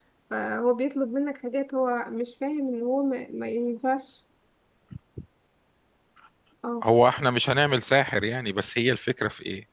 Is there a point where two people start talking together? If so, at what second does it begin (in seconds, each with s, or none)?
none